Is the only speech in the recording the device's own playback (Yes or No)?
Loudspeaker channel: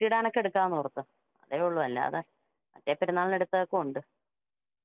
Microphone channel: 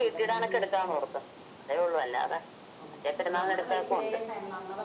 No